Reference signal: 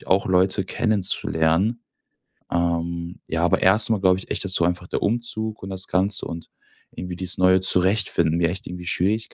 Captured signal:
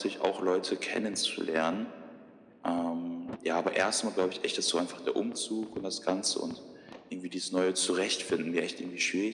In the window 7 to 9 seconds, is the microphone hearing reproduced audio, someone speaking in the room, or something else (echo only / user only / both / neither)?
echo only